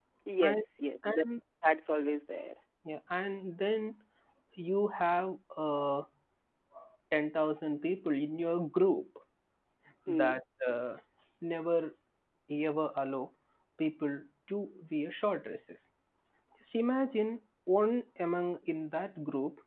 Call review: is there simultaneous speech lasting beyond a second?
No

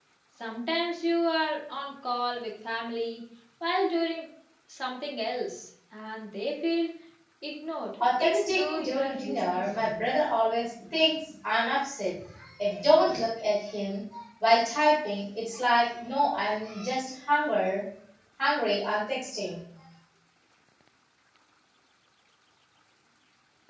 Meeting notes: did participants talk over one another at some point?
Yes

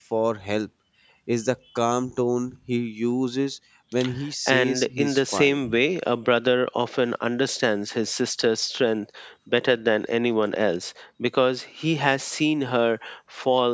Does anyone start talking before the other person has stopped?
Yes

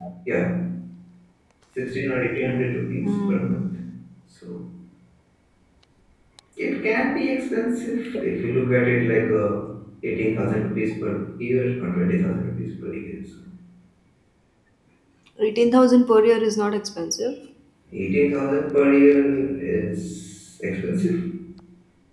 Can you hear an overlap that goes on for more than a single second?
No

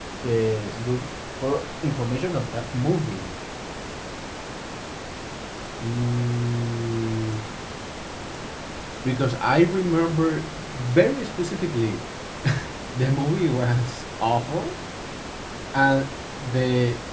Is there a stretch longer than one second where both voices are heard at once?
No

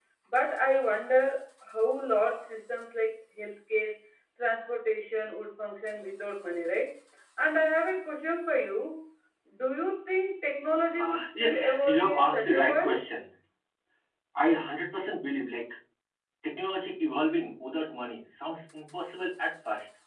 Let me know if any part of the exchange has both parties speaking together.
Yes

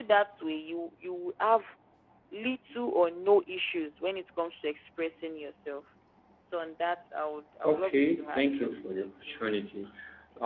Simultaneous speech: Yes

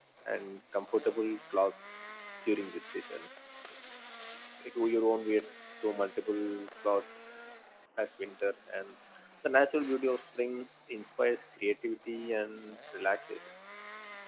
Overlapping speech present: No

